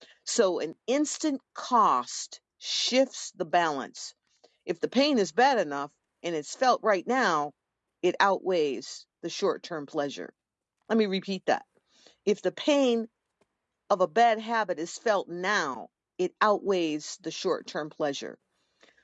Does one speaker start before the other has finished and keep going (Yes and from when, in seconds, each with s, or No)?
No